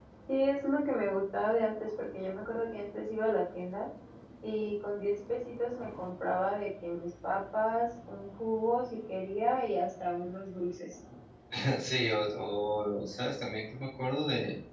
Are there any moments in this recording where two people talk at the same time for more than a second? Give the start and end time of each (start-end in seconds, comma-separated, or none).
none